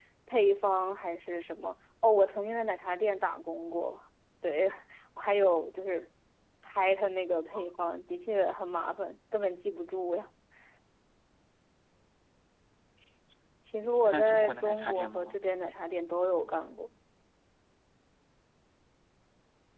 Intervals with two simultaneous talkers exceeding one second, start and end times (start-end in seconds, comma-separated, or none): 13.9-15.4